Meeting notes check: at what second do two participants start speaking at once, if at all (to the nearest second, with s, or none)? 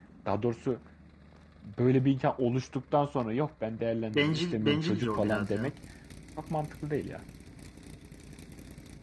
4 s